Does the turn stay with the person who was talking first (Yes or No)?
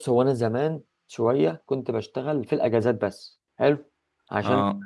Yes